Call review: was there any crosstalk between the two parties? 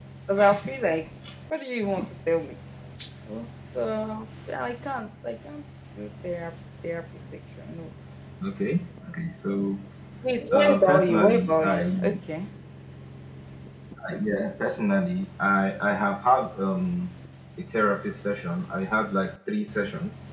Yes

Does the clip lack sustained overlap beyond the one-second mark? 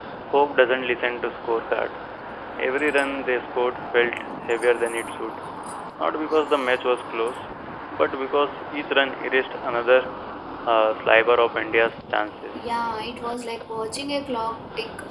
Yes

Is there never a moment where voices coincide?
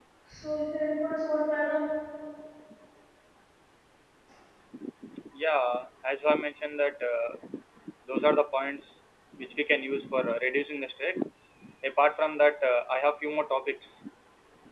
Yes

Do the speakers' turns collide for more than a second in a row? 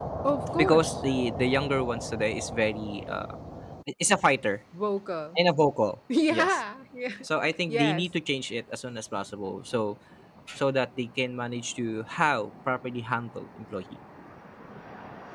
No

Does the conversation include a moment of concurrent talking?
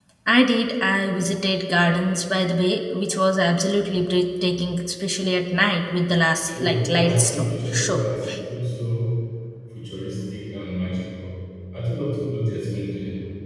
Yes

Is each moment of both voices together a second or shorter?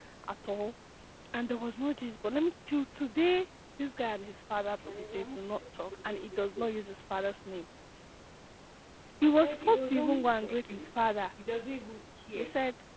No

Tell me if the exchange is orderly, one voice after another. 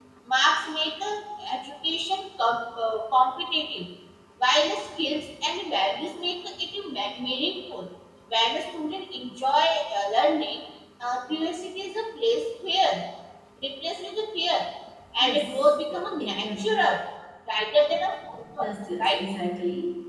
No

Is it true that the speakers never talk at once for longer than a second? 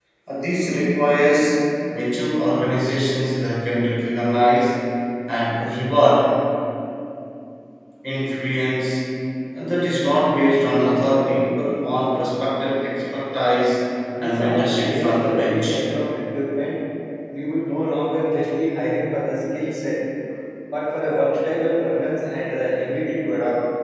No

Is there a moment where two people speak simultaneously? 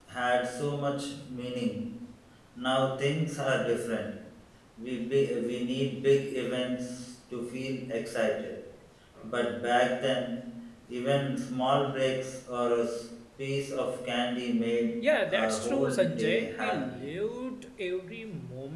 Yes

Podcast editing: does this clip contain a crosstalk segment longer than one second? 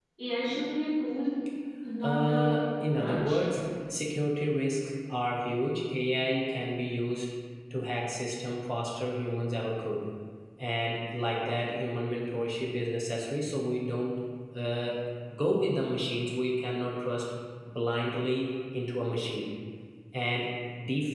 Yes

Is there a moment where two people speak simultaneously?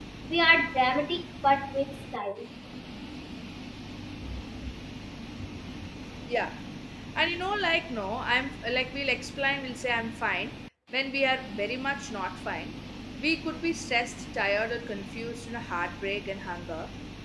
No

